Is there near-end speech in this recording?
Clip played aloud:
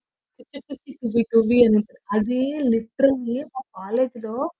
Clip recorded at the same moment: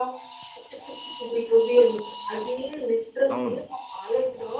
Yes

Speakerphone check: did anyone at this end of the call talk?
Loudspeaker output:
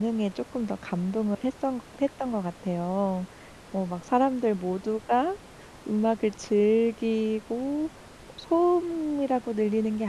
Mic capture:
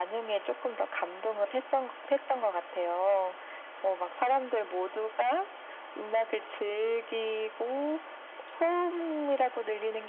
No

